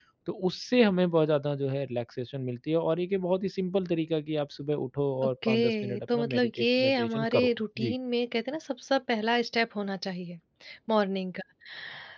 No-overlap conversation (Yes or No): No